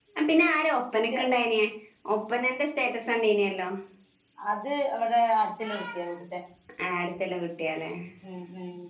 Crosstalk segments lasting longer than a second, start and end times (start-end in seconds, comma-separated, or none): none